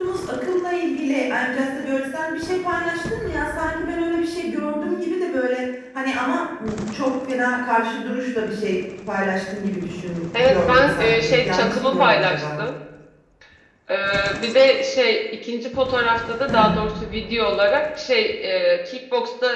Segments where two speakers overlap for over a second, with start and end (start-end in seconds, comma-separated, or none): 10.4-12.6